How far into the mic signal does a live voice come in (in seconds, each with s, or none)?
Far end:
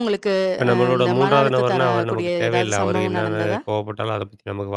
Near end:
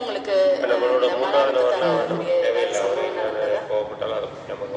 1.8 s